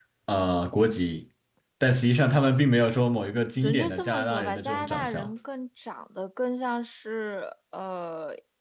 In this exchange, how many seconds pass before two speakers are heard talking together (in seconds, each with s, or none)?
3.6 s